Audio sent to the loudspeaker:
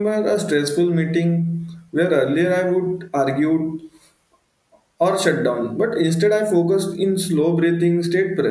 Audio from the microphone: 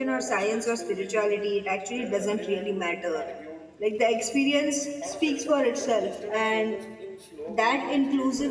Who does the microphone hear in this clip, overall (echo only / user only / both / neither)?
both